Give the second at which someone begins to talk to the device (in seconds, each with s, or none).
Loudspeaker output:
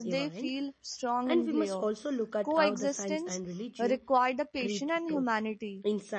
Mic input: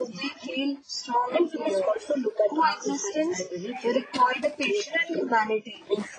none